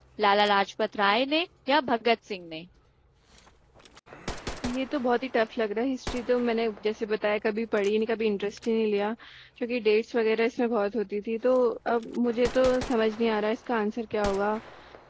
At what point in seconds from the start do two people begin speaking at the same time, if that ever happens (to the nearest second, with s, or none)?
none